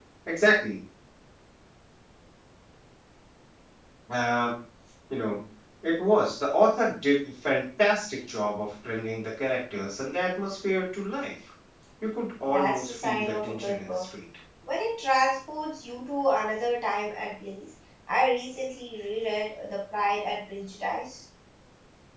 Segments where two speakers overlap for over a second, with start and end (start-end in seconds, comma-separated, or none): 12.5-14.1